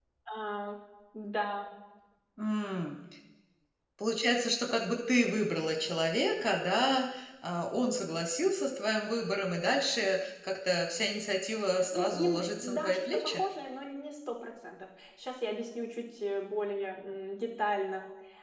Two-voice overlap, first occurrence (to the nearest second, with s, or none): 12 s